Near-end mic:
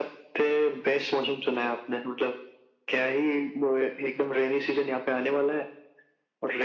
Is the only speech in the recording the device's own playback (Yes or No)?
Yes